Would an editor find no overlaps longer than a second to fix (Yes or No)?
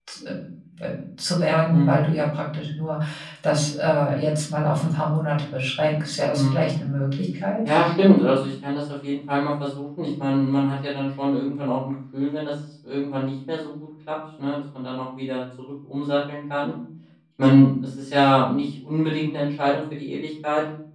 Yes